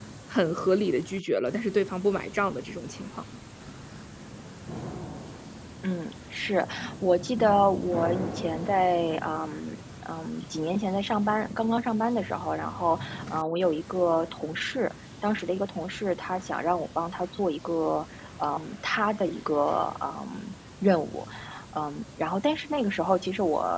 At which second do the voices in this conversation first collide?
none

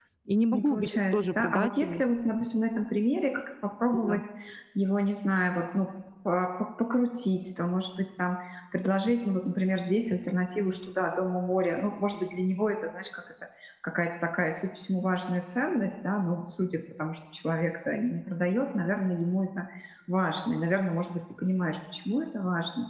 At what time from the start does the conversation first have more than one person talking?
0.5 s

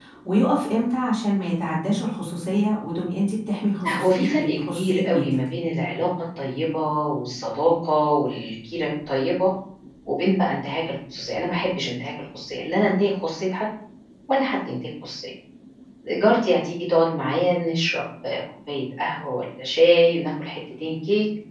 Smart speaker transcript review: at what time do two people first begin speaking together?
3.8 s

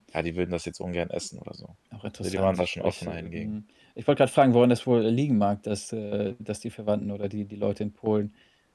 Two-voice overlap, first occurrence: 2.2 s

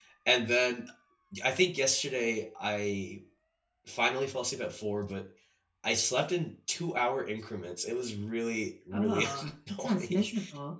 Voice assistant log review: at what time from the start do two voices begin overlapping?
8.9 s

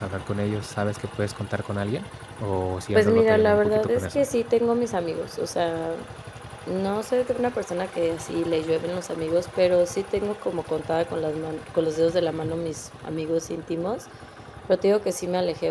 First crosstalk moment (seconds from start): 2.9 s

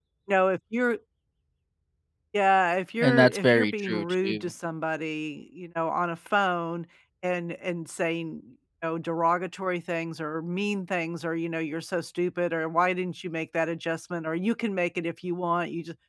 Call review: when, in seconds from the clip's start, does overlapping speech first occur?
3.0 s

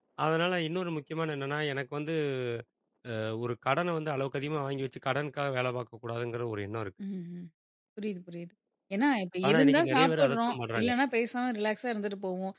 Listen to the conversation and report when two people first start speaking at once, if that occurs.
9.5 s

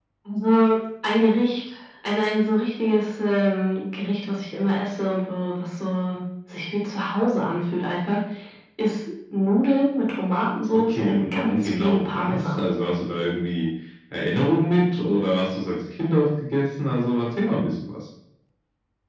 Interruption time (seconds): 10.9 s

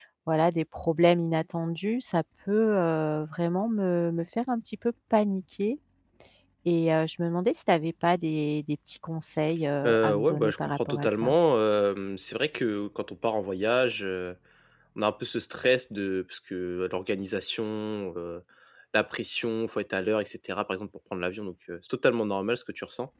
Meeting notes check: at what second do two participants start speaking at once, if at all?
9.8 s

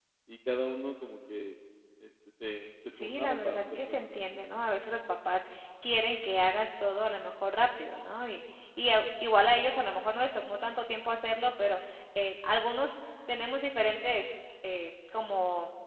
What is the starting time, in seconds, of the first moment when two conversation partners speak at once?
2.9 s

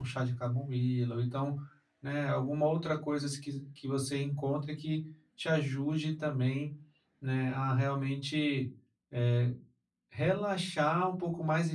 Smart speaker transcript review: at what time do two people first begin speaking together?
none

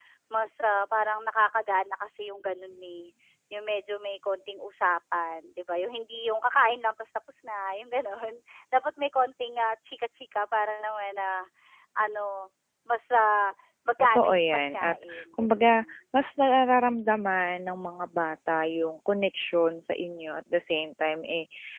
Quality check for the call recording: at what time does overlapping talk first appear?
14.0 s

